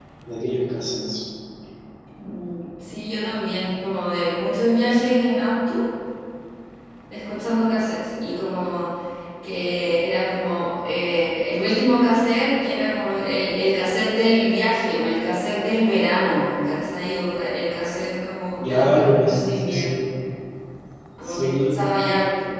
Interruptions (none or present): present